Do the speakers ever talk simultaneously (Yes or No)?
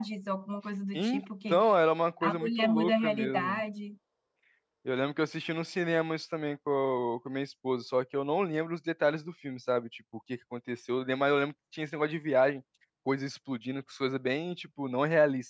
Yes